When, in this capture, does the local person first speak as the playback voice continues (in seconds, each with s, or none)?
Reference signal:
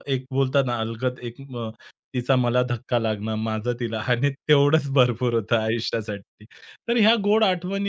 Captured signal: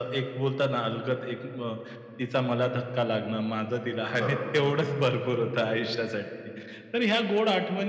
4.2 s